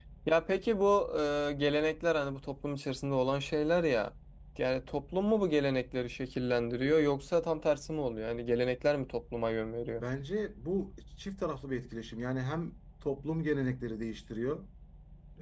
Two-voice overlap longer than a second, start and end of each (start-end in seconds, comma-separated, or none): none